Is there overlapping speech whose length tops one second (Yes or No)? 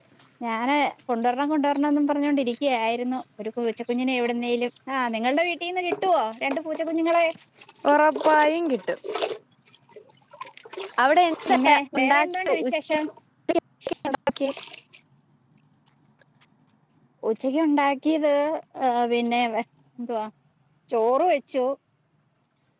Yes